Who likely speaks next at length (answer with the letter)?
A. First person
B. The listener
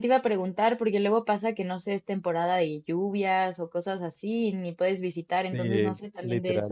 B